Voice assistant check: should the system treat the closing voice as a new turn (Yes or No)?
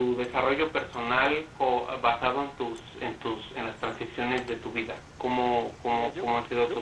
Yes